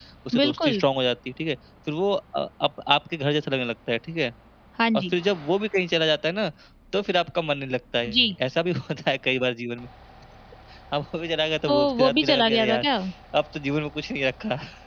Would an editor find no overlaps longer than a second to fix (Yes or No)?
No